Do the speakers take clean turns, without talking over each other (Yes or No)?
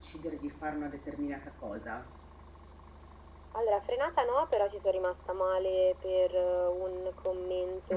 Yes